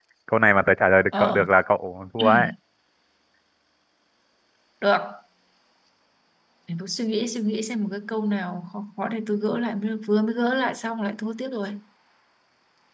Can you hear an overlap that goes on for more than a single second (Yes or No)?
No